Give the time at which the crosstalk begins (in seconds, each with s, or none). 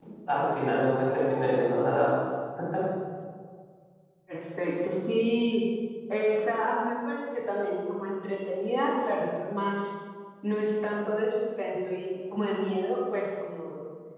none